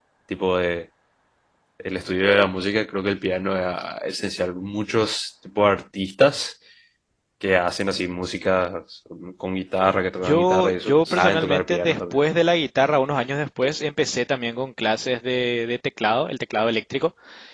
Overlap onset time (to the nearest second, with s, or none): 10 s